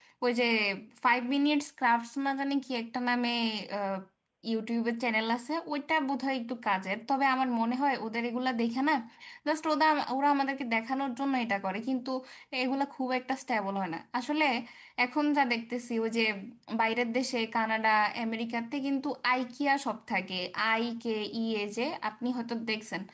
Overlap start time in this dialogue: none

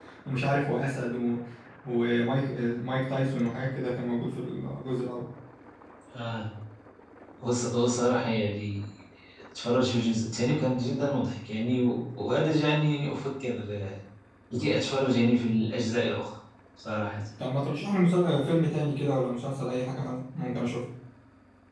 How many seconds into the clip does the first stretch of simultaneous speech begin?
none

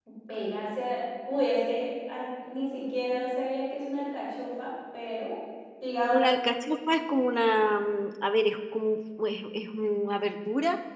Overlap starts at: none

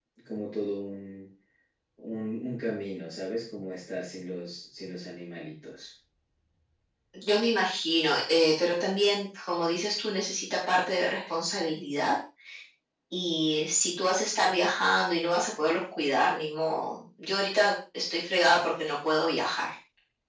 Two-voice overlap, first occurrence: none

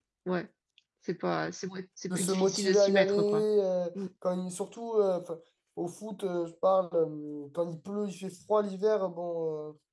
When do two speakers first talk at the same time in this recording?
2.1 s

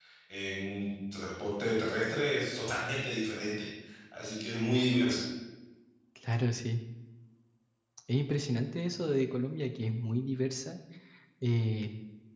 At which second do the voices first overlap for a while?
none

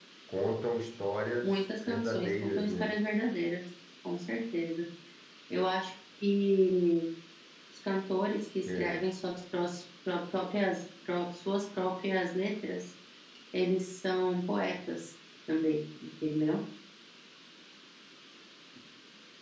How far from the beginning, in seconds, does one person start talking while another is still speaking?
1.4 s

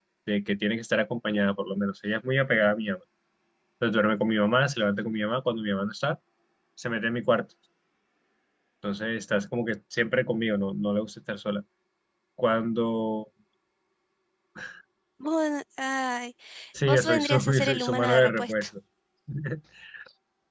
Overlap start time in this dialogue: 16.9 s

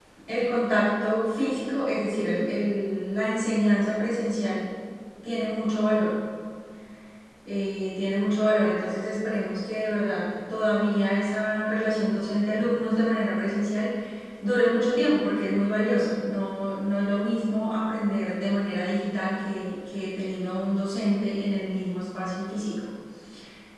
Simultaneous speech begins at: none

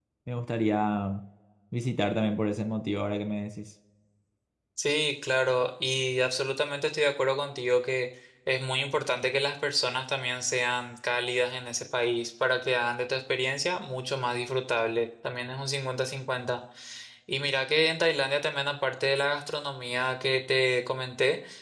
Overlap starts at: none

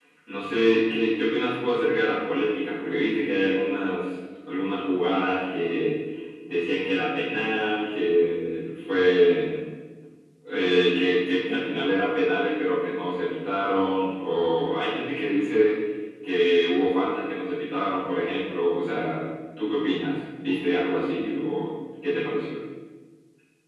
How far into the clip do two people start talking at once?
none

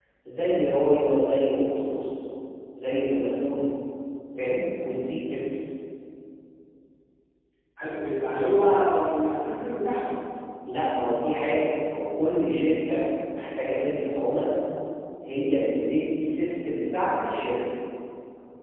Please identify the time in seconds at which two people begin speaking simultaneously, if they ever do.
none

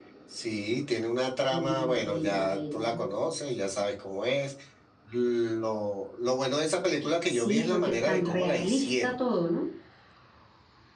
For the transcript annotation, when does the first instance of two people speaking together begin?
1.5 s

